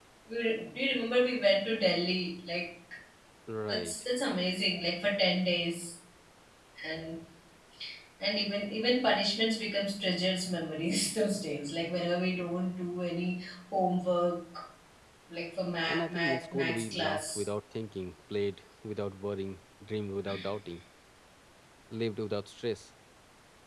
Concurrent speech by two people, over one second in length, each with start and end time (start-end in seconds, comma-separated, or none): 15.9-17.4